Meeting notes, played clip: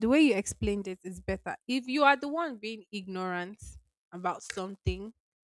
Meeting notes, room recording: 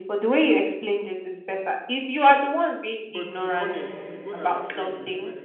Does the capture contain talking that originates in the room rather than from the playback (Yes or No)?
Yes